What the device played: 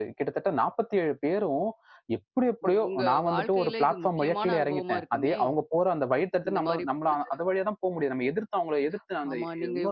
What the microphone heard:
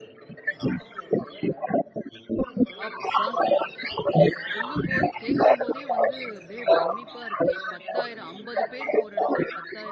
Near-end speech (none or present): present